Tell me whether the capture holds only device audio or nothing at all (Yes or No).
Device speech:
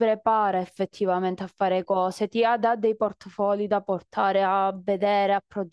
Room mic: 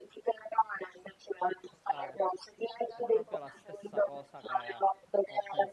No